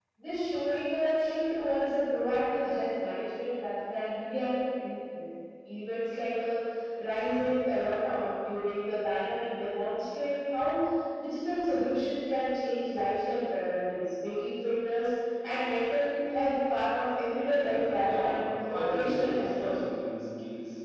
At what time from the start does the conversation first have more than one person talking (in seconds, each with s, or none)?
18.1 s